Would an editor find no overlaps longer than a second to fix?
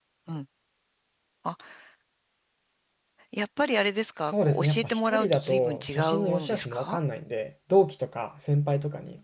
No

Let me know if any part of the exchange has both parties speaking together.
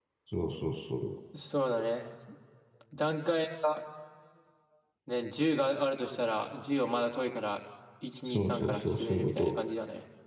Yes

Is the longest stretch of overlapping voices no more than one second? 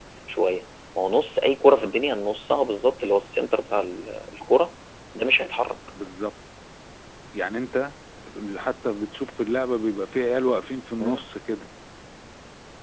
Yes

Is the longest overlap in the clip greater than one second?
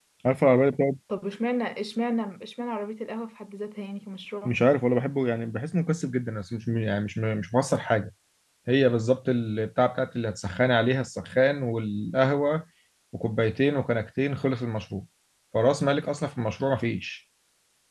No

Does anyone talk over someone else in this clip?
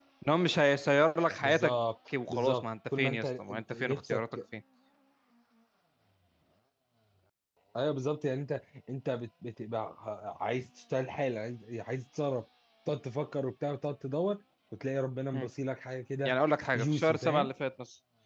Yes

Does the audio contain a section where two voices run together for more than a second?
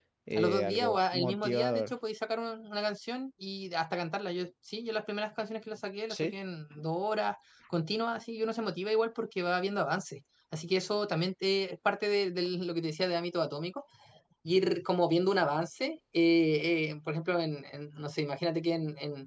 Yes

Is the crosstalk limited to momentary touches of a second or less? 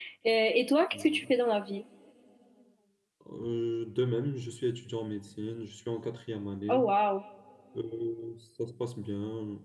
Yes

